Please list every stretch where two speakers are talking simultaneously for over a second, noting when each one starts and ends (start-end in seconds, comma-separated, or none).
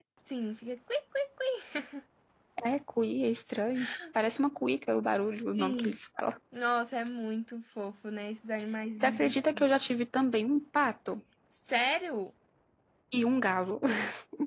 none